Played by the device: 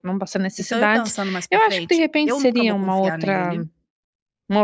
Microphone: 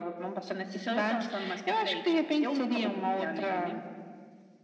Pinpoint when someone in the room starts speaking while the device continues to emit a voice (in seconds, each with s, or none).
none